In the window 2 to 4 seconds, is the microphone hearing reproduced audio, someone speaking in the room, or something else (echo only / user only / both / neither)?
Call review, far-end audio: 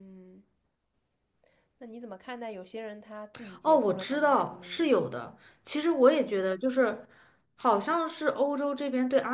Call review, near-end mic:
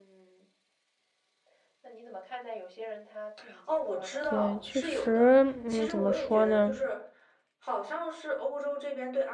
echo only